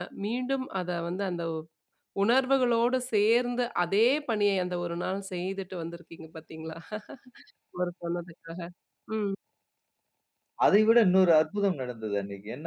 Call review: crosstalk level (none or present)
none